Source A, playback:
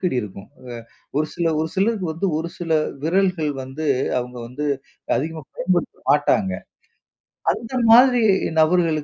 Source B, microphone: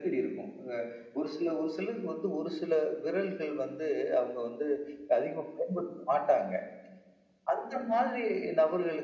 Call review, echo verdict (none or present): present